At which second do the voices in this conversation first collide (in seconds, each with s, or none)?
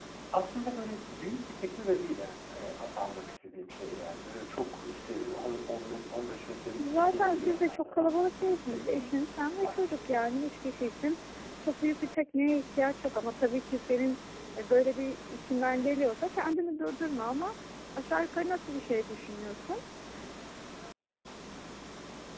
6.8 s